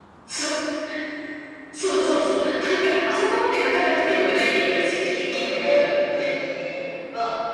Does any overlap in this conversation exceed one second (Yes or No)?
Yes